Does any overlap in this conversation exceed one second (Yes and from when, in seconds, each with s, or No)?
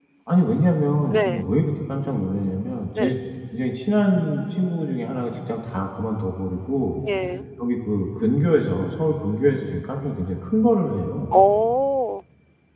No